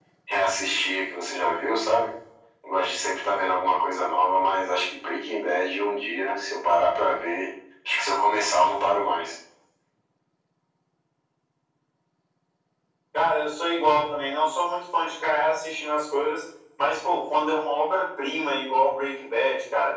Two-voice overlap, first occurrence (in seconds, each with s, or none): none